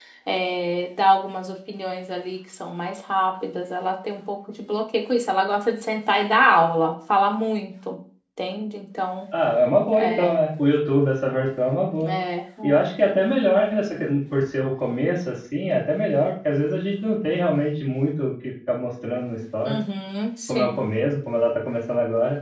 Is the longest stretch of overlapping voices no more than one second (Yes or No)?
Yes